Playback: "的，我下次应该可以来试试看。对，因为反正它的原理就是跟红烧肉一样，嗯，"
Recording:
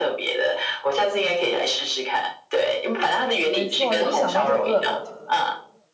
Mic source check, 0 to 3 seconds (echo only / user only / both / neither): echo only